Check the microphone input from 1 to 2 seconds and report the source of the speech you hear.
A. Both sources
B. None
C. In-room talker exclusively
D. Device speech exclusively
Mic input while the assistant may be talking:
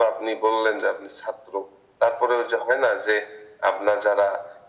D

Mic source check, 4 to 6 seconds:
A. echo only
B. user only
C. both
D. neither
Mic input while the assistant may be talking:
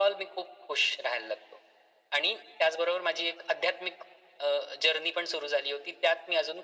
A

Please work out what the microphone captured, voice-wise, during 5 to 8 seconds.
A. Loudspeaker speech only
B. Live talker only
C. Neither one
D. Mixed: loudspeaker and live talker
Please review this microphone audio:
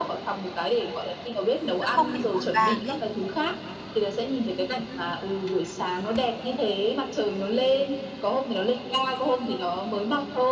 A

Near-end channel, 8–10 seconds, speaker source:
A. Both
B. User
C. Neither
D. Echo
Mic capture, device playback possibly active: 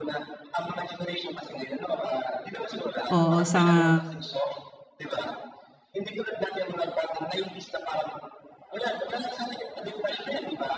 D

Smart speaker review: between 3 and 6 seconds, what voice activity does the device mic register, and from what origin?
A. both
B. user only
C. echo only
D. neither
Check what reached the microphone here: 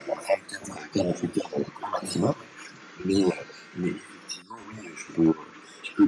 C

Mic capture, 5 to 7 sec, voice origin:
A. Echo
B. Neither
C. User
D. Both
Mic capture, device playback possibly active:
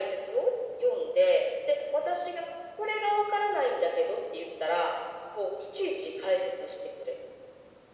A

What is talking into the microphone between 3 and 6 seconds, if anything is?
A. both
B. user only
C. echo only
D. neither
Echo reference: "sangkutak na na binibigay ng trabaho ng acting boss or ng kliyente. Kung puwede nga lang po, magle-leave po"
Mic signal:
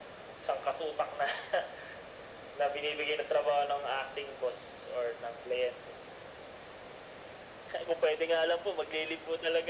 C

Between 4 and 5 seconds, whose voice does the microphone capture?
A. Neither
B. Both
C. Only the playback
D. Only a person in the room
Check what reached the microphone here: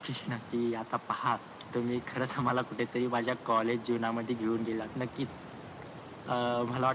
C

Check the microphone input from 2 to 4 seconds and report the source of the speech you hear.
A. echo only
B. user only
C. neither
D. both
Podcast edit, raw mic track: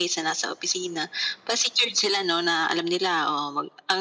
A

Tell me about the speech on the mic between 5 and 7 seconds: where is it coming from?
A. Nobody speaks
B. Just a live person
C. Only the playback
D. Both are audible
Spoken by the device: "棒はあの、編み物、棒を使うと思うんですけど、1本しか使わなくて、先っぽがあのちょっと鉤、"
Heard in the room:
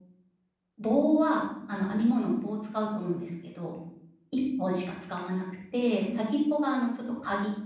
C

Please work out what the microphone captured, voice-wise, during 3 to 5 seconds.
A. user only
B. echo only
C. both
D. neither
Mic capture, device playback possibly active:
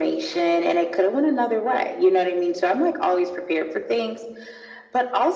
B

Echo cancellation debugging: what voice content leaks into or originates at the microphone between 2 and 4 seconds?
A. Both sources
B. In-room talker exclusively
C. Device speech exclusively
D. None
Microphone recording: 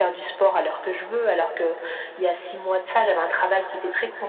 C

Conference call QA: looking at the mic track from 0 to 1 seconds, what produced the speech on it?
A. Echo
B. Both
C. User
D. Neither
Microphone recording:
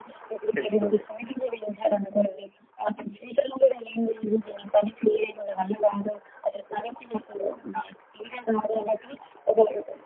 B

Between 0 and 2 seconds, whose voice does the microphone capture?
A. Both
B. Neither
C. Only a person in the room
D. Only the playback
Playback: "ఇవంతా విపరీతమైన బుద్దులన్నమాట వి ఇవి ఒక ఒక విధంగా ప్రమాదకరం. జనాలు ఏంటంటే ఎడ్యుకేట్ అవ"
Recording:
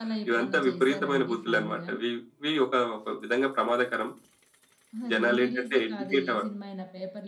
A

